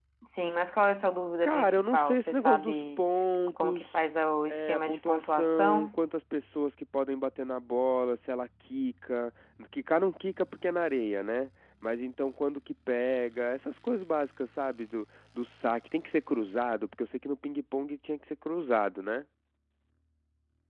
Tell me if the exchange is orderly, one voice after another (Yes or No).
No